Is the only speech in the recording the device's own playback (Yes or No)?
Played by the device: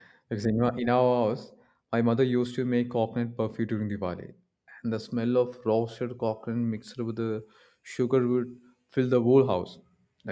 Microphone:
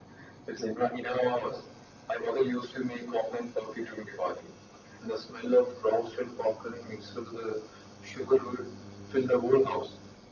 Yes